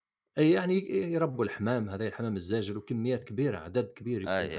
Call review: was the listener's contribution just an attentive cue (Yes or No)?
Yes